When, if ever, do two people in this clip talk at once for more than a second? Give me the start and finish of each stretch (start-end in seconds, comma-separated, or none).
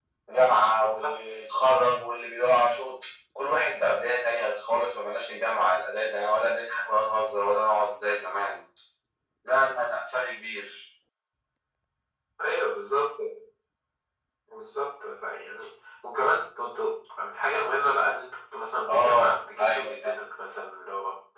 18.9-20.1